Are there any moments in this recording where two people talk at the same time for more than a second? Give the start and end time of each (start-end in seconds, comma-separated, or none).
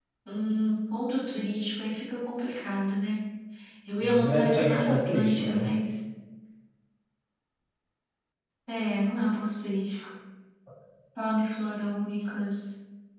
4.0-5.7